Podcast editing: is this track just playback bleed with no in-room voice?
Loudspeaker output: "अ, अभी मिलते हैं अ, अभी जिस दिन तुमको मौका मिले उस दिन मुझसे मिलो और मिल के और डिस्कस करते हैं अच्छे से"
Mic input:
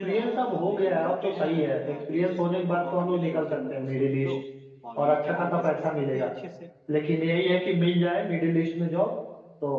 No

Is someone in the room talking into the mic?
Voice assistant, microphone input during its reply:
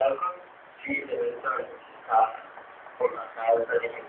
No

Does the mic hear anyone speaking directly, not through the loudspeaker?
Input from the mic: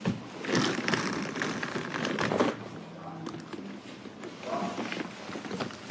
No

